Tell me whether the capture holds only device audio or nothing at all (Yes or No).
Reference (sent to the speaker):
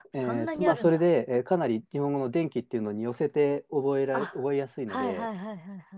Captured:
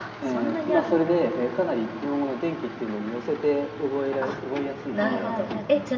No